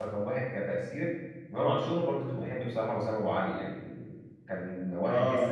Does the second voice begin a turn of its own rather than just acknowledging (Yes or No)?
Yes